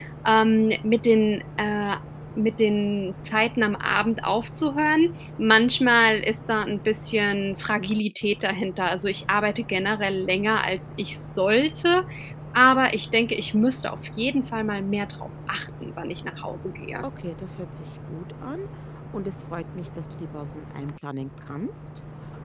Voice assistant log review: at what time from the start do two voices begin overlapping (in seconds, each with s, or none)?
none